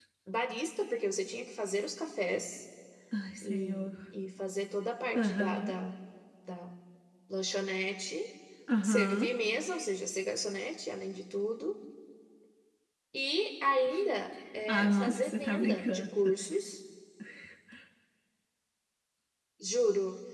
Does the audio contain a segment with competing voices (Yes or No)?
Yes